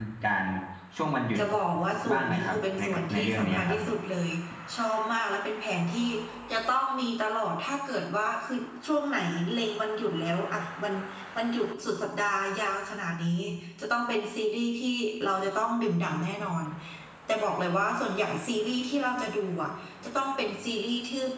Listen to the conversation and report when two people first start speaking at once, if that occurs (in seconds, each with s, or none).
2.1 s